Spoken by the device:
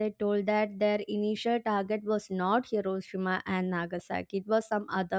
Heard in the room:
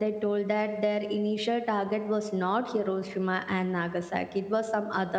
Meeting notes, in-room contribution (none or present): none